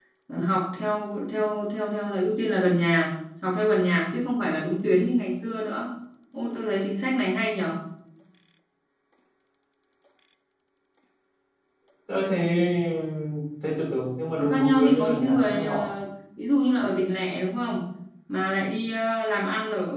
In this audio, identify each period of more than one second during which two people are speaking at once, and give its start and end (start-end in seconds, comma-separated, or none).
14.4-15.9